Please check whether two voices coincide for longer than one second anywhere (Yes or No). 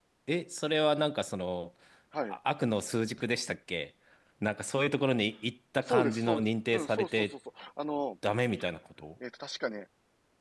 Yes